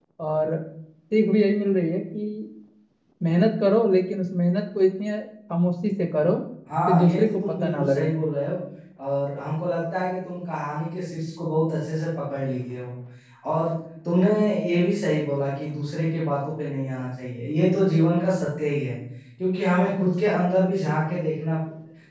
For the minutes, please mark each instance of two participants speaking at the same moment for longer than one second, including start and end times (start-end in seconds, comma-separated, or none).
6.9-8.1